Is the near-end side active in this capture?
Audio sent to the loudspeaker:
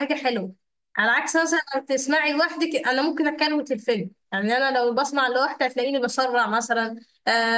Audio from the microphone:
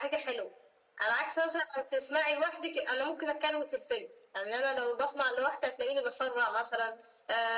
No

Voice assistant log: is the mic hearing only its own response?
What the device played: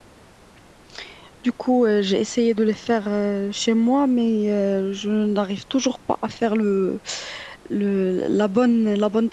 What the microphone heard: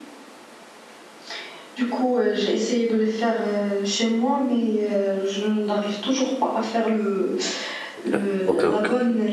No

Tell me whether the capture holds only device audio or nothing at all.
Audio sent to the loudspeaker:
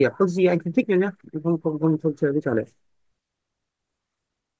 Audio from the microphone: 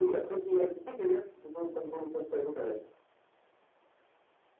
Yes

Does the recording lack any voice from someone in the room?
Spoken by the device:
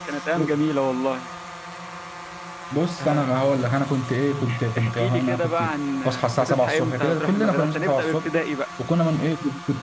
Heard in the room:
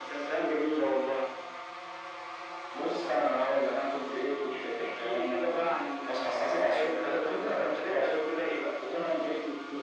Yes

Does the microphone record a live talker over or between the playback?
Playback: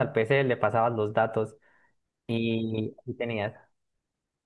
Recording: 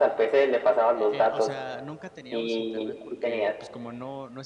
Yes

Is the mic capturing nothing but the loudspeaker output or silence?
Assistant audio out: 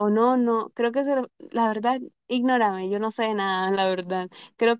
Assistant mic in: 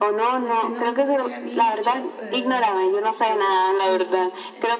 No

